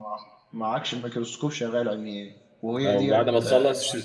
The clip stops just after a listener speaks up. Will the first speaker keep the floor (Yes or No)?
No